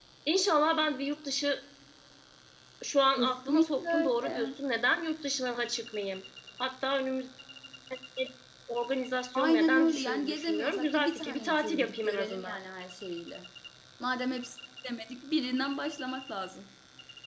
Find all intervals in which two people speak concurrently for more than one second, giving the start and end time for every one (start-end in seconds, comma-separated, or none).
3.2-4.5, 9.3-12.6